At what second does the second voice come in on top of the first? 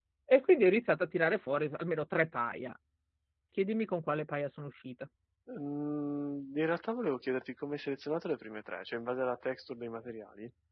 none

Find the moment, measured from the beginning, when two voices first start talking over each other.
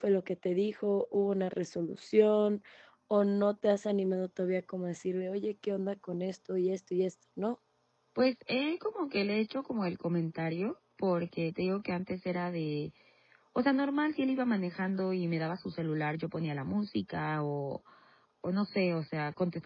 none

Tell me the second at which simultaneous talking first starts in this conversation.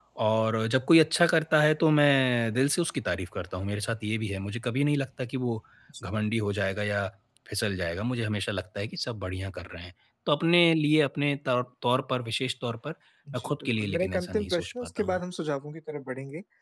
13.3 s

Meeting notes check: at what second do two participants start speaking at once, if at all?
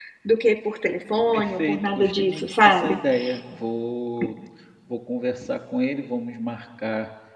1.3 s

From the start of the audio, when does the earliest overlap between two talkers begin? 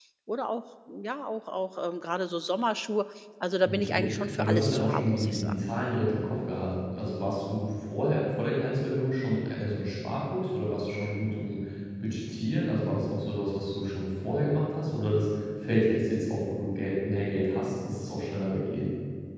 3.6 s

